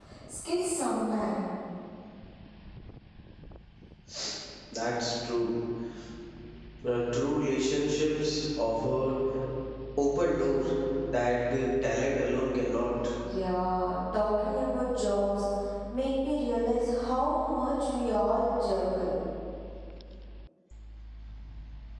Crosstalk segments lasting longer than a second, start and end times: none

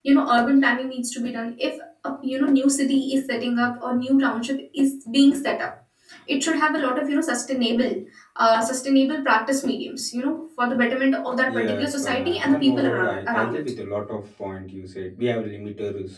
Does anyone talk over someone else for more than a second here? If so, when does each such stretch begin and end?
11.5-13.6

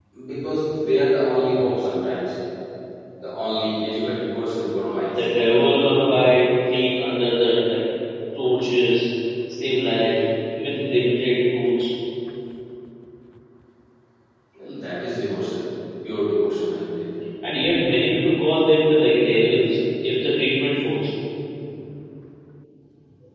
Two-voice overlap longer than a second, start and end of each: none

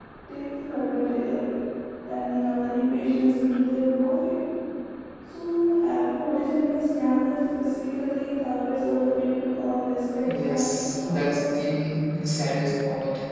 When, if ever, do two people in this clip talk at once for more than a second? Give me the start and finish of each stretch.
10.3-11.6

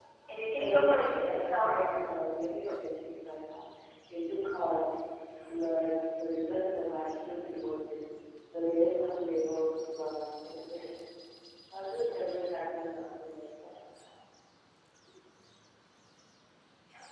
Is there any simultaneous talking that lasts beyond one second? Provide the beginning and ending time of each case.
0.6-1.8

